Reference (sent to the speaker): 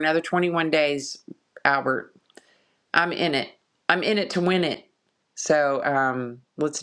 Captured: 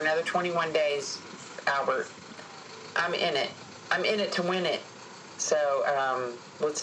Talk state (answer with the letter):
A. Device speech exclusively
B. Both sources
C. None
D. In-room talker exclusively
A